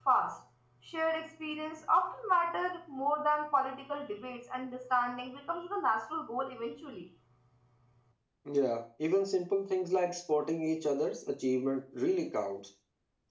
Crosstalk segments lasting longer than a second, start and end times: none

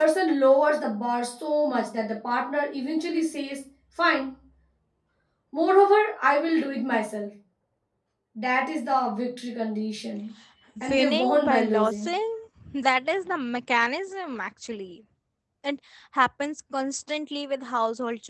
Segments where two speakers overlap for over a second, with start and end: 10.9-12.1

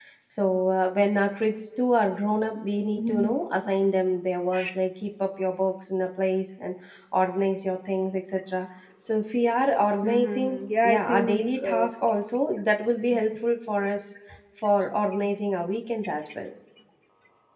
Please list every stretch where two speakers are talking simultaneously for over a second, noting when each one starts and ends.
10.0-11.9

